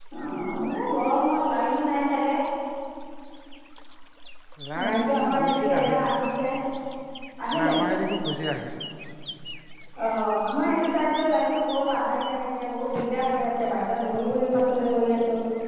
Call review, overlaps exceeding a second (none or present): present